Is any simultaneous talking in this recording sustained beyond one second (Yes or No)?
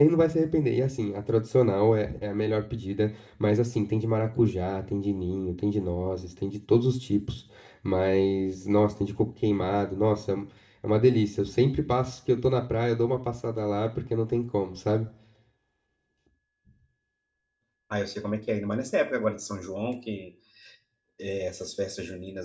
No